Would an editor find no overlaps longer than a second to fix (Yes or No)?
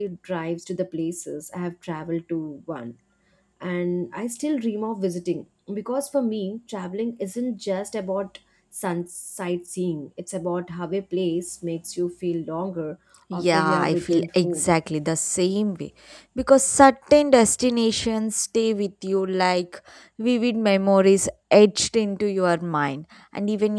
No